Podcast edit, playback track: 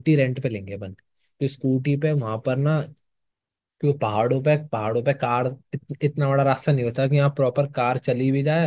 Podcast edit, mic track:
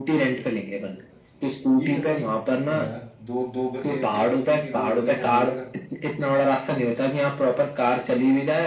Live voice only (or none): ठीक है भाई ठीक है हाँ दो दो ब- ए, एक स्कूटी दो बंदों का हो जाएगा